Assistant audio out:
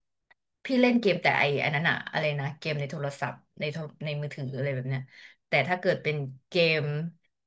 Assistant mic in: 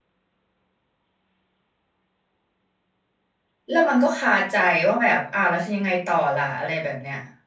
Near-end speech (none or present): present